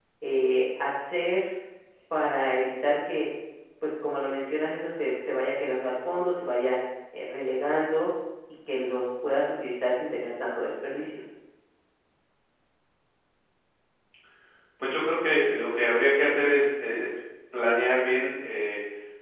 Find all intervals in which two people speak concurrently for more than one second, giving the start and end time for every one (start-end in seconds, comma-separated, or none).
none